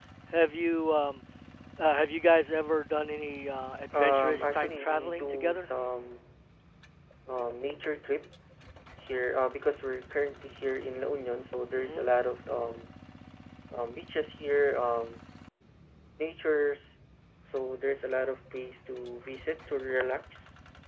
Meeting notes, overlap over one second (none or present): present